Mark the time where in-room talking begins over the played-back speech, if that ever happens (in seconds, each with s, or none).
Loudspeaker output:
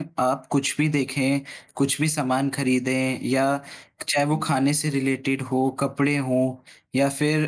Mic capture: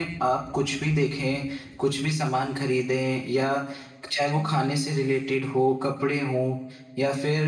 none